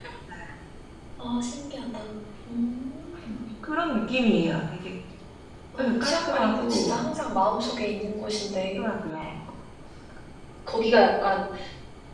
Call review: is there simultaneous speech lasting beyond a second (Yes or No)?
Yes